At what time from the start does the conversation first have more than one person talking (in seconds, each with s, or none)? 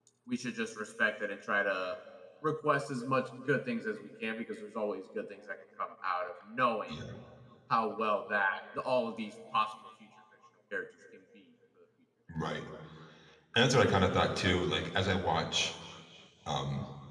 none